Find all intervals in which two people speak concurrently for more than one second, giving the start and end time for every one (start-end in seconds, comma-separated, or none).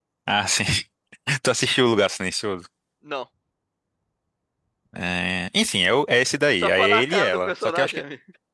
6.6-8.0